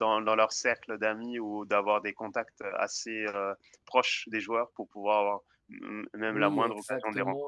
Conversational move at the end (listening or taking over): taking over